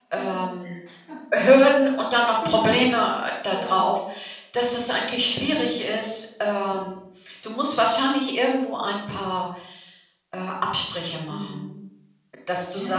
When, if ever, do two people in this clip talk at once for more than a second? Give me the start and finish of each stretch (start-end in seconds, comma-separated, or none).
none